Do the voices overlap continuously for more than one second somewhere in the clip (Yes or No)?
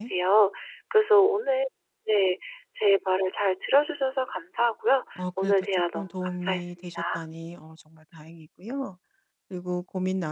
Yes